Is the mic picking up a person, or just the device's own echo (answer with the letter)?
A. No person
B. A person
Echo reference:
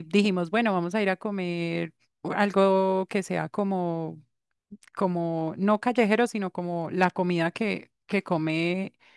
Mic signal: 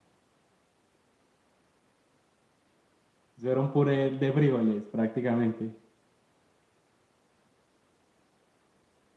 B